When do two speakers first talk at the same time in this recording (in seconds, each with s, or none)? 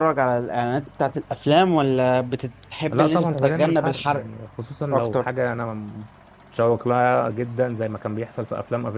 2.9 s